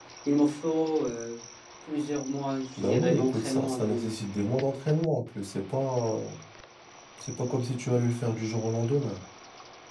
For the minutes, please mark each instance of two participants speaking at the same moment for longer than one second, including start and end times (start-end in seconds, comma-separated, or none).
2.8-4.0